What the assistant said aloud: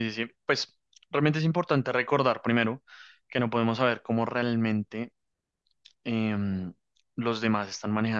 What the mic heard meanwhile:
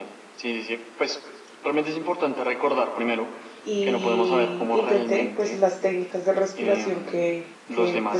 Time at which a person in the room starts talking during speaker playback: 4 s

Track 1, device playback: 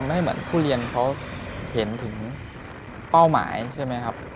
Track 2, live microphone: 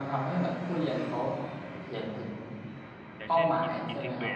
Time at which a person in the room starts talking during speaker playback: 3 s

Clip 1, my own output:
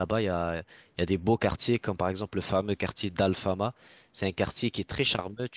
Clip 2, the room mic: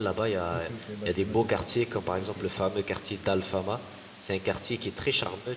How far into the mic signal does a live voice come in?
1 s

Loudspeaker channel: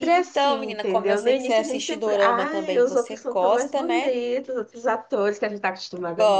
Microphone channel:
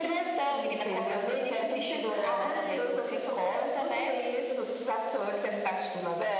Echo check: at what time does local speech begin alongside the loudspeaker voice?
none

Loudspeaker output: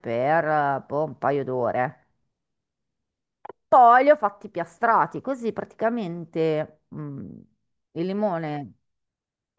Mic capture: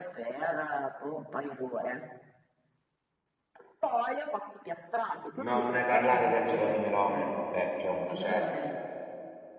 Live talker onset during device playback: 5 s

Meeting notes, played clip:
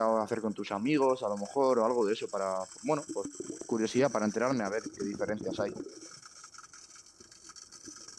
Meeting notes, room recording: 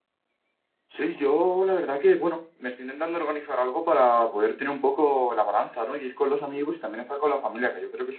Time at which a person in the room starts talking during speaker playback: 1 s

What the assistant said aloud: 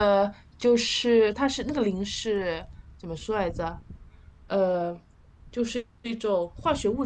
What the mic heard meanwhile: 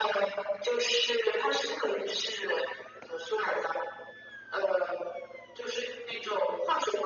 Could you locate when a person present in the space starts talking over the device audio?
none

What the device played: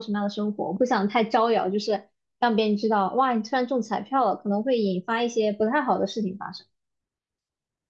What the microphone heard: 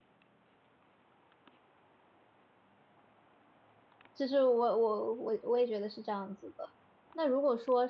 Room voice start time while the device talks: 4 s

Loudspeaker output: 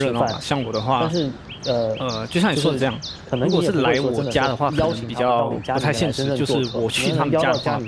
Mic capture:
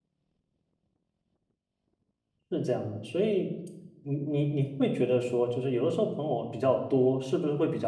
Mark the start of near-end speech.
2 s

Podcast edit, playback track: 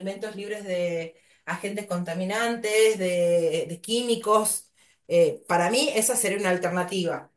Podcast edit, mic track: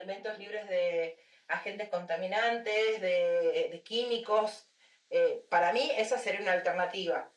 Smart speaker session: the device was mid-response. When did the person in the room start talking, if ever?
none

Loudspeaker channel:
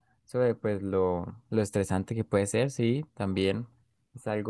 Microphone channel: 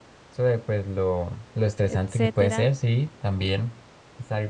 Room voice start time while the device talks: 2 s

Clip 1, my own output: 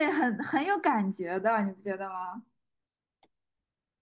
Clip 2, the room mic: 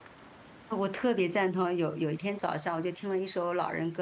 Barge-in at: 1 s

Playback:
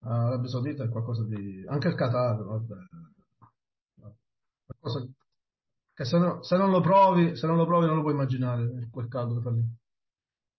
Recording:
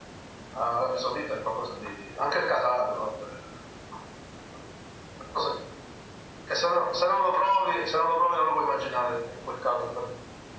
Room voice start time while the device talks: none

